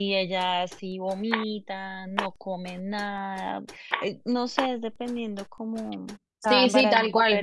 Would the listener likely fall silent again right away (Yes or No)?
No